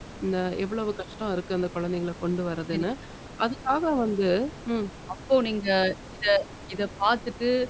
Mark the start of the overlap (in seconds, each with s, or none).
none